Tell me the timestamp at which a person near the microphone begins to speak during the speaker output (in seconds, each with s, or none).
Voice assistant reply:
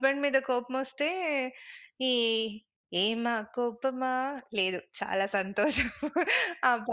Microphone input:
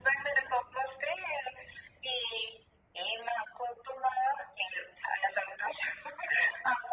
none